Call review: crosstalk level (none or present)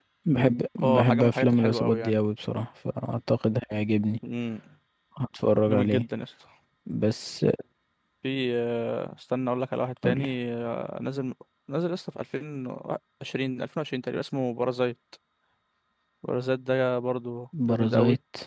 present